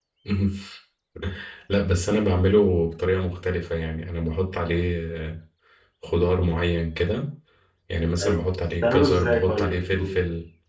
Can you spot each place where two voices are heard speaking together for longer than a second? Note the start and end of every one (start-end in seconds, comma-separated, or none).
8.8-10.2